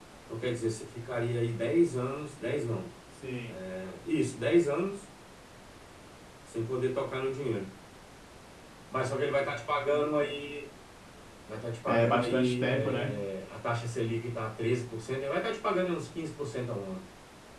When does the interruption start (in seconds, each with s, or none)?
11.9 s